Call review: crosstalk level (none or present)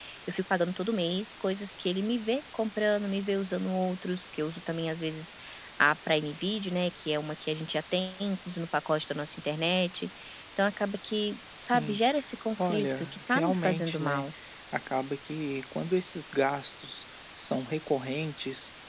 present